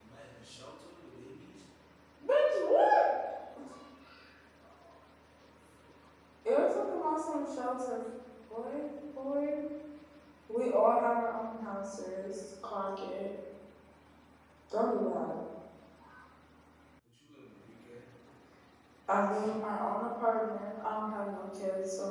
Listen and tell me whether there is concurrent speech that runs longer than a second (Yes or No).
No